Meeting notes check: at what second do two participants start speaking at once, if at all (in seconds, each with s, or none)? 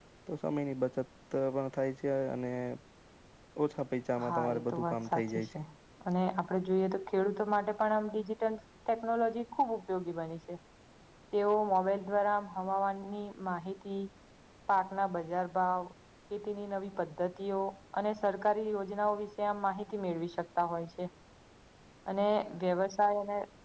4.2 s